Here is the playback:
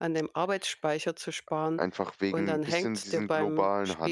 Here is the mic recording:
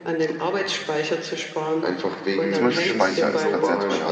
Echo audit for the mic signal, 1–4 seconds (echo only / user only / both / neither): both